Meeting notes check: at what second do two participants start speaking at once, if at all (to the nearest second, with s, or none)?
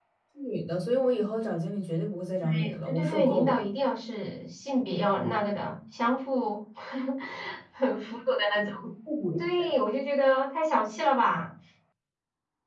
2 s